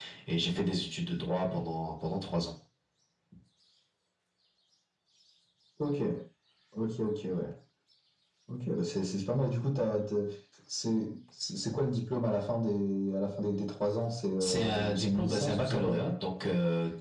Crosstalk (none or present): present